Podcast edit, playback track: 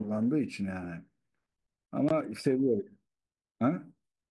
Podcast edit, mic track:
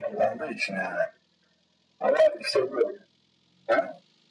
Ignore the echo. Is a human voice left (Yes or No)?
No